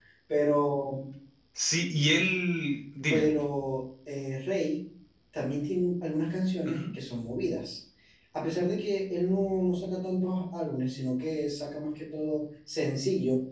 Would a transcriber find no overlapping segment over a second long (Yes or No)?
Yes